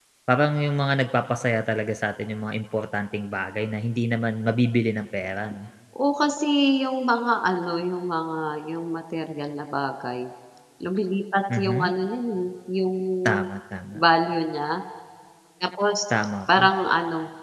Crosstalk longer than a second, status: none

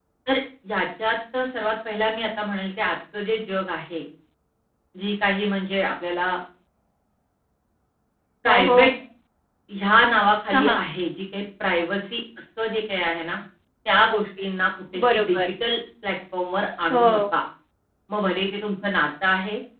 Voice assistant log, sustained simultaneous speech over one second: none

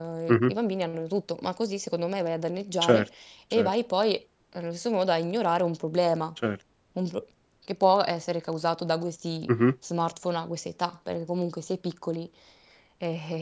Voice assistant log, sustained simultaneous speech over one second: none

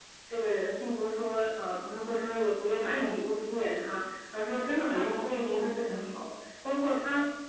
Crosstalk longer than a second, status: present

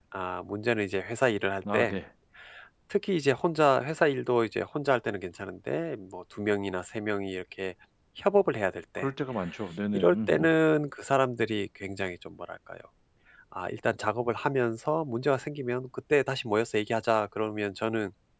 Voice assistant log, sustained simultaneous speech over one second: none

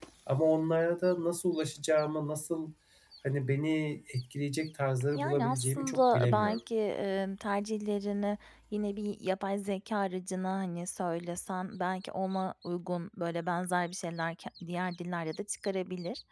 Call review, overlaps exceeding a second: present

